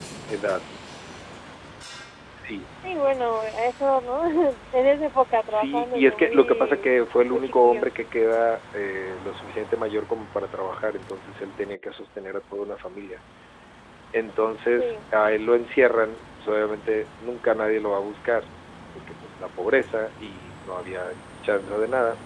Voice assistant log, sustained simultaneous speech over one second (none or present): present